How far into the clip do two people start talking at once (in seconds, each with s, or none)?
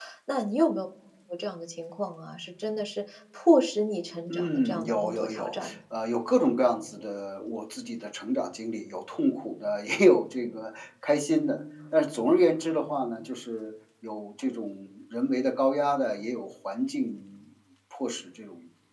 4.3 s